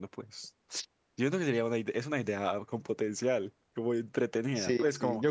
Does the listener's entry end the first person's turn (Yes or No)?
Yes